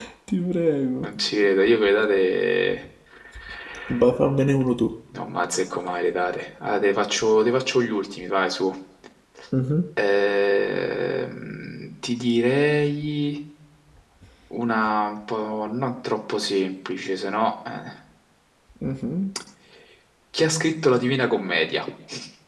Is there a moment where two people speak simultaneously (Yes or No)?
No